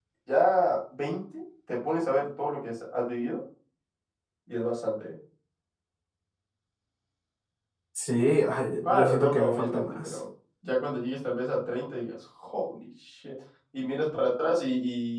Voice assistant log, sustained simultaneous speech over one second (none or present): present